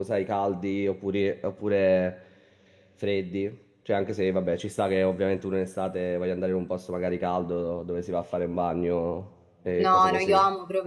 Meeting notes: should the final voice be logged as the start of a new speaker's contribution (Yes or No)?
Yes